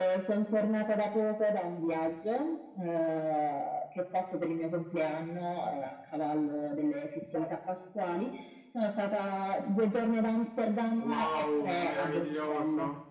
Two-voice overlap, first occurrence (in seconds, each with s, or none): 11.0 s